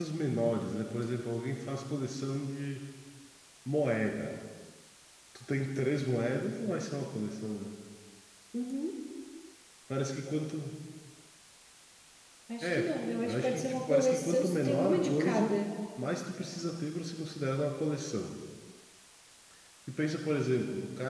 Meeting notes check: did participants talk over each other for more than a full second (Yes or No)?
Yes